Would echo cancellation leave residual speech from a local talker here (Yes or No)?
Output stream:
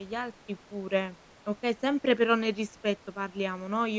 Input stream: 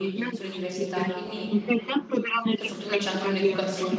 Yes